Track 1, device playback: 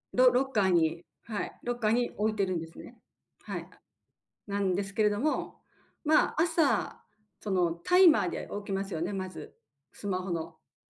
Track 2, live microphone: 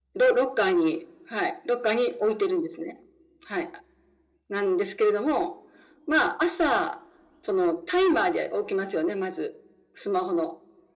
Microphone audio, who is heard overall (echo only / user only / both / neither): echo only